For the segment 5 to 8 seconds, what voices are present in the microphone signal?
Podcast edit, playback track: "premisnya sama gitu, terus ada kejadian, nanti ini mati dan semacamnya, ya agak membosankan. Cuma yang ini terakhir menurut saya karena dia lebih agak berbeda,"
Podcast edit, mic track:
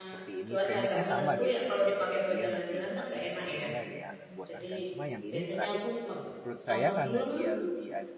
both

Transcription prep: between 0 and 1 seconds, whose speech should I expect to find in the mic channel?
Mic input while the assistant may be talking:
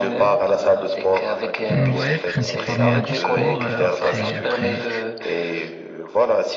echo only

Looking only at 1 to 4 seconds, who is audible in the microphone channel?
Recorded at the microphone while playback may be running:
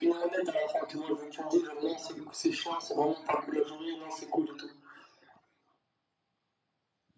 echo only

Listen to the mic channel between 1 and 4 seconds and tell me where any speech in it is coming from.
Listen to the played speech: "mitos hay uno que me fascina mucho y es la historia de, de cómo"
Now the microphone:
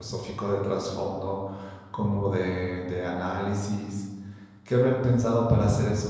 user only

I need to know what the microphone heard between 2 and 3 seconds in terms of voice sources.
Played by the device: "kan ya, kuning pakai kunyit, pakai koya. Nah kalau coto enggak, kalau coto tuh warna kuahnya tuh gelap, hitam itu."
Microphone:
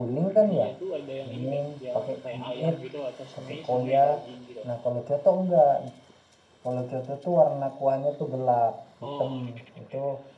both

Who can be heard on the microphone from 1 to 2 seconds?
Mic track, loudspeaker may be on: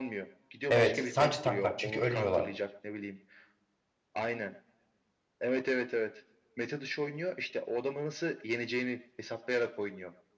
both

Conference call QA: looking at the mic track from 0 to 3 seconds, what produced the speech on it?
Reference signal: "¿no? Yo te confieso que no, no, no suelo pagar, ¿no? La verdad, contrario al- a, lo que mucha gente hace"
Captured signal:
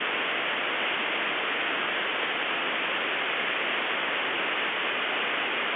neither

